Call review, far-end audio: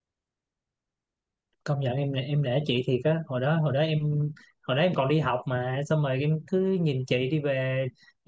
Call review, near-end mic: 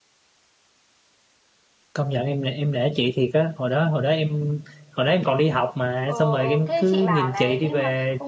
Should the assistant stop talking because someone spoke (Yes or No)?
Yes